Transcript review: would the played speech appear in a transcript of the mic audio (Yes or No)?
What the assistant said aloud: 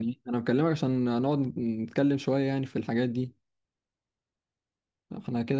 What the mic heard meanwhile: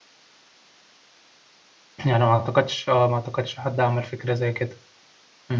No